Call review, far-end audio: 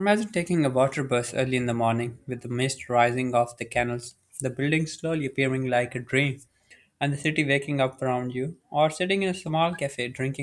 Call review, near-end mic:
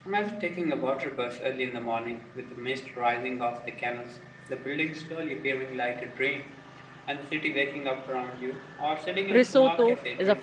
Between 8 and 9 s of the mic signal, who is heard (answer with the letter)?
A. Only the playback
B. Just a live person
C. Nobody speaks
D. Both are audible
A